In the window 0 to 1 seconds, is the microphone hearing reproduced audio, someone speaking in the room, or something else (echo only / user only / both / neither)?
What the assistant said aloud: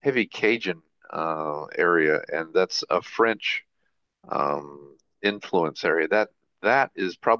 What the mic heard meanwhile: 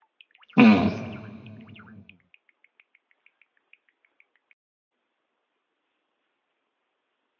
user only